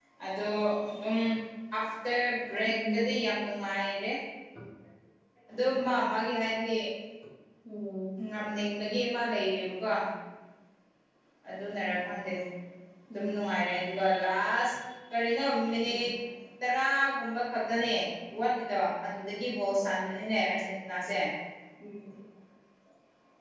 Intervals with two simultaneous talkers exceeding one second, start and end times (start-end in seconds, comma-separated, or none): none